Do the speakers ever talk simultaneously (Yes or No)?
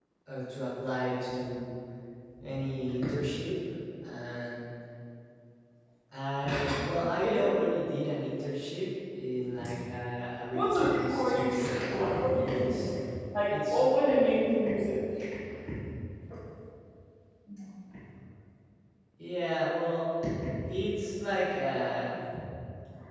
Yes